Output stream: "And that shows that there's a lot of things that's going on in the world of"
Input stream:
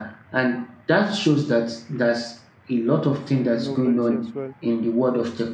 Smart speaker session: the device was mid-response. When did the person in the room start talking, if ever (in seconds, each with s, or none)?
3.3 s